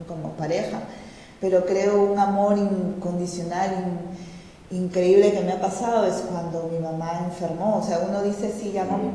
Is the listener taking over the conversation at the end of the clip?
No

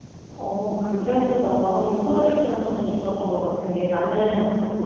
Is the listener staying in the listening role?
Yes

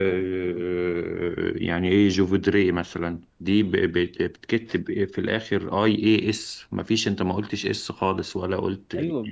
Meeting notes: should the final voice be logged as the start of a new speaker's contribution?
Yes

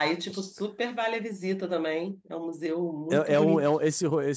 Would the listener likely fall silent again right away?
No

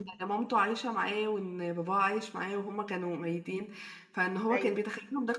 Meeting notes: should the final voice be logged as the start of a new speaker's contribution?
No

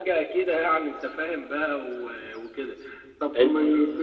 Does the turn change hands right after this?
No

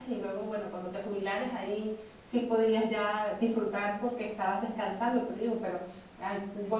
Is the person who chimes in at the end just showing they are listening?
Yes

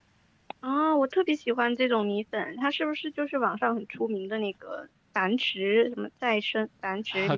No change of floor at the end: No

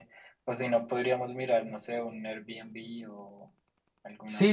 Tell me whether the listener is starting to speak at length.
Yes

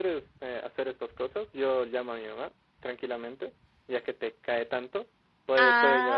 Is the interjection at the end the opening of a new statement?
Yes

